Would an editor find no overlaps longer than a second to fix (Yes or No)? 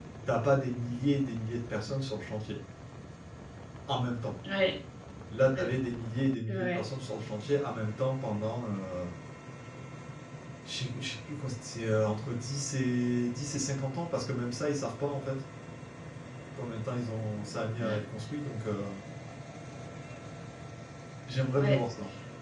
Yes